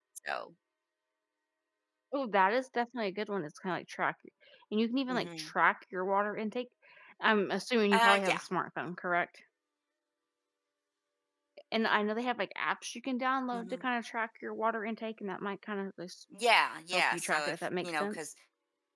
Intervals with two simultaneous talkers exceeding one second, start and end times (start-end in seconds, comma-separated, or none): 16.9-18.2